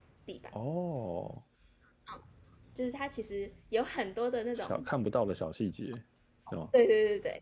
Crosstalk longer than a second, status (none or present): none